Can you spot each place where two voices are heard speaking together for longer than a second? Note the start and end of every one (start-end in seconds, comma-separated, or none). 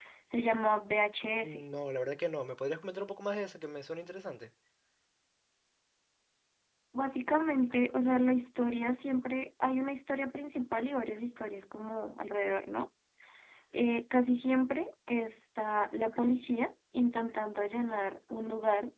none